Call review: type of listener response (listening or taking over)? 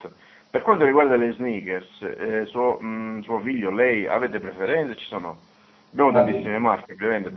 listening